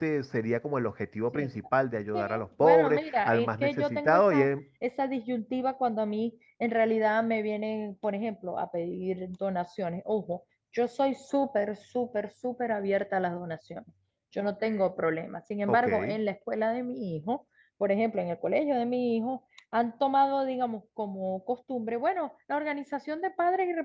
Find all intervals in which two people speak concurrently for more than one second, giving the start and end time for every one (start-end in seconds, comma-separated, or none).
2.1-4.5